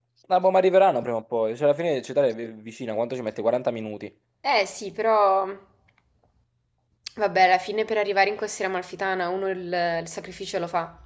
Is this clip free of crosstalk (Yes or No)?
Yes